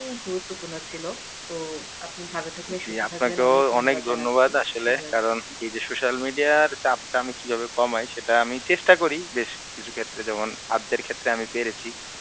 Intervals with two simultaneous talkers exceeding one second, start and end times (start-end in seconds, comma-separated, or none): 2.8-4.4